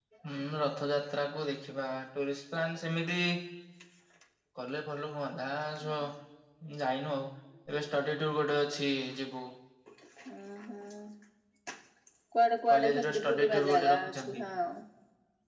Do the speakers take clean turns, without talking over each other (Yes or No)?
No